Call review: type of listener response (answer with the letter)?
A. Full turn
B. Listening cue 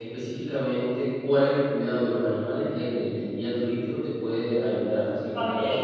A